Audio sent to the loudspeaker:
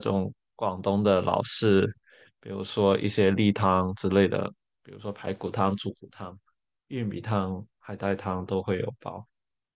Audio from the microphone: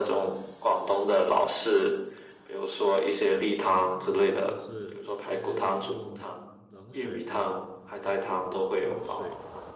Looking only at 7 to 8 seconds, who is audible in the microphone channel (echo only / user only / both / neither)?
both